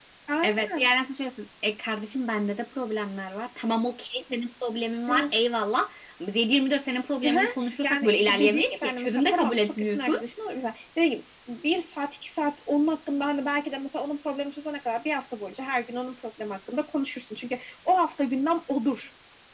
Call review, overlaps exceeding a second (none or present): present